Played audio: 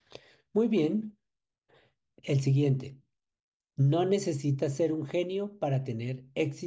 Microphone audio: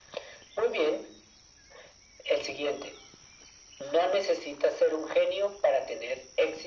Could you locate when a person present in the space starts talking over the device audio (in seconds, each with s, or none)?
none